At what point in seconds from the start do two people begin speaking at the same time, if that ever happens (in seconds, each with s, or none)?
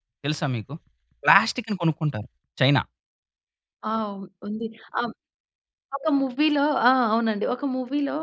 none